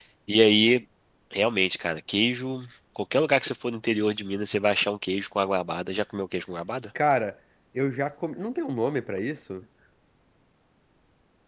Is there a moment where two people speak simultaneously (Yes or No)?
No